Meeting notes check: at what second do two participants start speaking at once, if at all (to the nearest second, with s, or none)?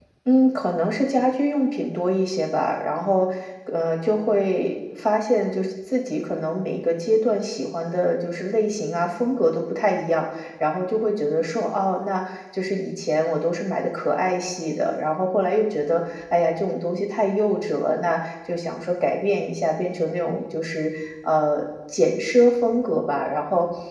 none